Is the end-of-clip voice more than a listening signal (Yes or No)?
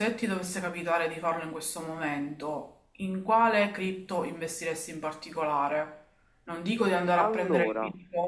No